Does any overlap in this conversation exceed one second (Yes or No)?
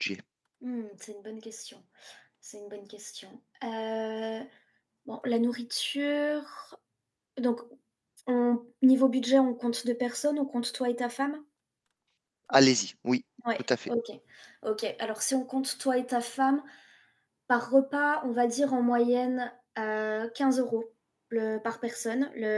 No